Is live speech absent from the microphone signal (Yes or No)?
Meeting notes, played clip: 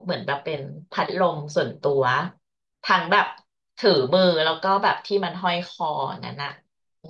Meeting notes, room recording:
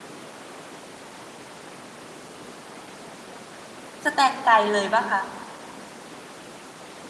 No